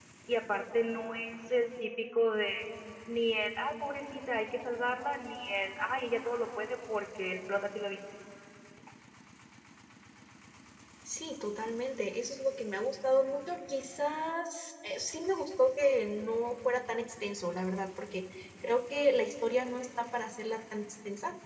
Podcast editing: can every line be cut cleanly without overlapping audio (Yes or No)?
Yes